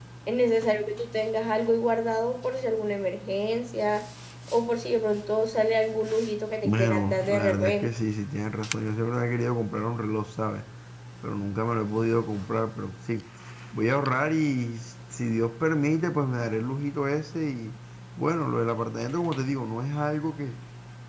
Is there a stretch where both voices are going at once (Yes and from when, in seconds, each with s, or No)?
Yes, from 6.6 s